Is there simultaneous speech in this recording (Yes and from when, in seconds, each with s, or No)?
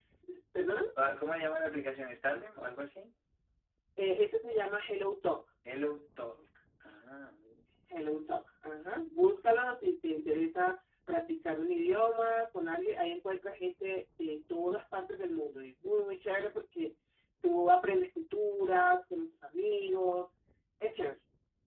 No